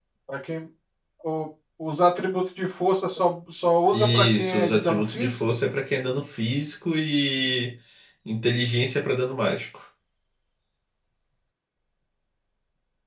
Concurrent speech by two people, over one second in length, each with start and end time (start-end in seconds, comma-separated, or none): 3.9-5.3